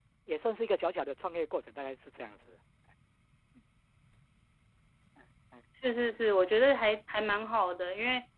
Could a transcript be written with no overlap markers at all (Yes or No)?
Yes